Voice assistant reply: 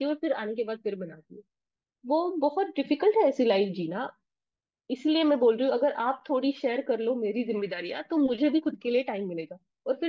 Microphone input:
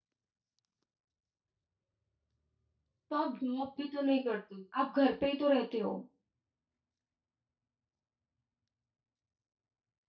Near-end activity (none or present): present